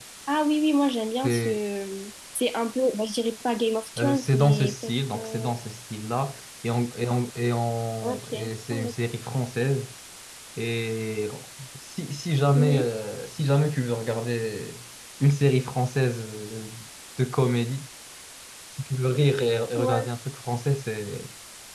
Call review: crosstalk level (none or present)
present